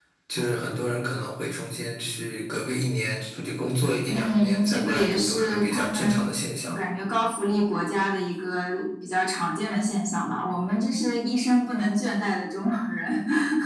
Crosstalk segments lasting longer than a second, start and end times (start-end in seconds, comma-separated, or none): 4.1-6.2